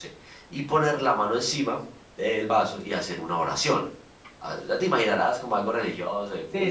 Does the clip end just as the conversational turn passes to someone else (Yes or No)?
Yes